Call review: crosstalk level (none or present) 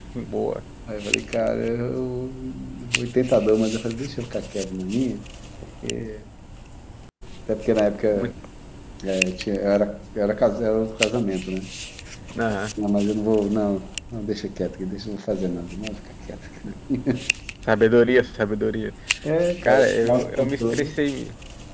present